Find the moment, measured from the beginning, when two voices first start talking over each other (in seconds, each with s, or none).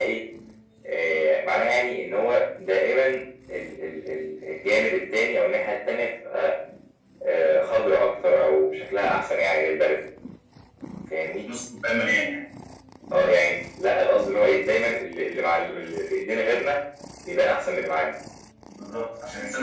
none